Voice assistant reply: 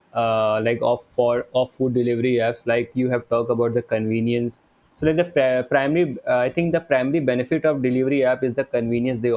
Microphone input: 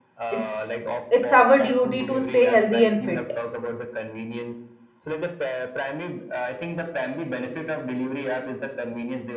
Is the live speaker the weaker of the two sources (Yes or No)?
No